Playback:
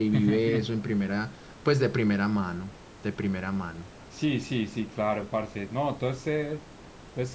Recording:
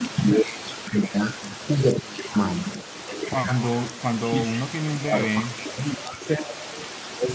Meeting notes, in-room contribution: present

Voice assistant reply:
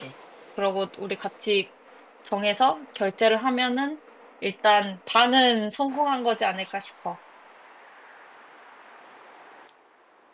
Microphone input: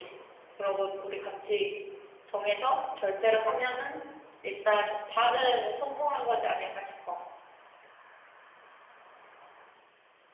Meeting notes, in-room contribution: none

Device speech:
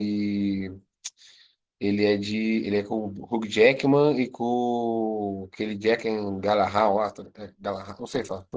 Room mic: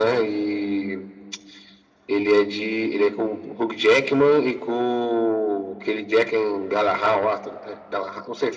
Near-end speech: none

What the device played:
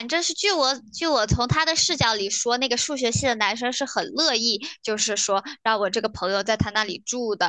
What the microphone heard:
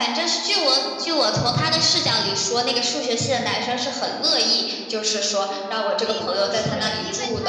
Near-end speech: present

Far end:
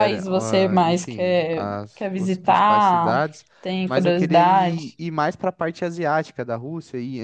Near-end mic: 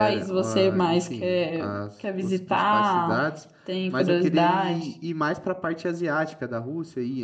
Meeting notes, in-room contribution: none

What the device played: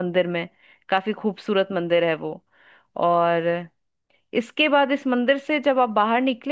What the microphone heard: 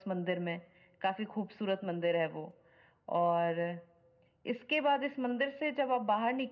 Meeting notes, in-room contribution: none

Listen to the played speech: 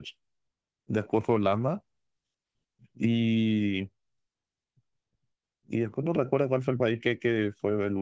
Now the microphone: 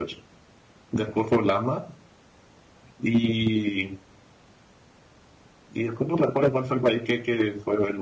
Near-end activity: none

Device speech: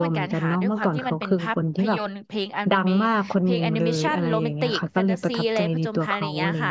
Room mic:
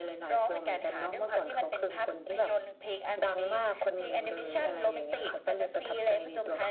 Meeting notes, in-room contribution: none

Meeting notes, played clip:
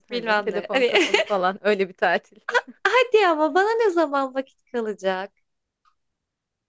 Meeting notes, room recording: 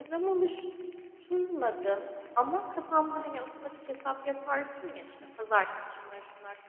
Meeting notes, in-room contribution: present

